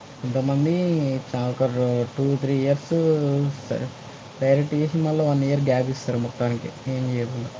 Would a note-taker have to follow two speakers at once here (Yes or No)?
No